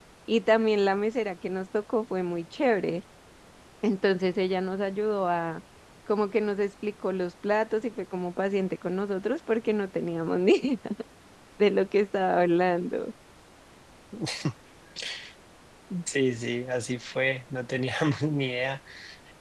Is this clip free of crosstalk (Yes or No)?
Yes